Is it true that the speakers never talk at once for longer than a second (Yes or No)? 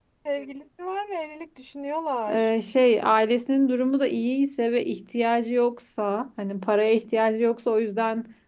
Yes